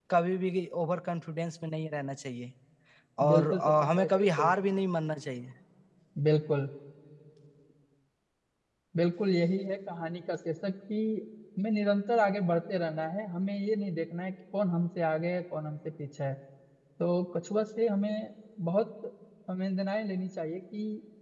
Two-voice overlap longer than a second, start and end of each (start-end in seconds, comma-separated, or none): 3.3-4.5